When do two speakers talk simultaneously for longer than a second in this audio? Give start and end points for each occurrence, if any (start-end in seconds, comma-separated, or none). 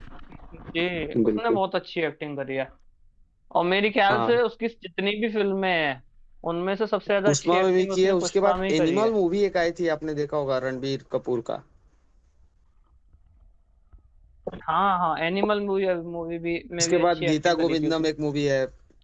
7.3-9.1, 16.8-18.1